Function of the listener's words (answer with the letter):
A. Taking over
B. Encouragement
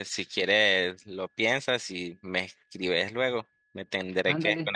A